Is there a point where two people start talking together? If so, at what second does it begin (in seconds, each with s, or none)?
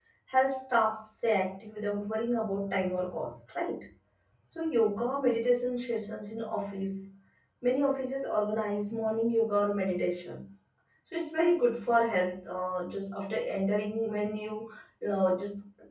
none